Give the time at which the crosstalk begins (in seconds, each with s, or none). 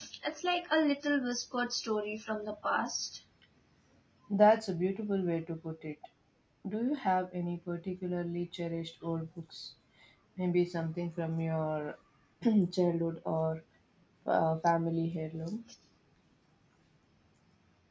none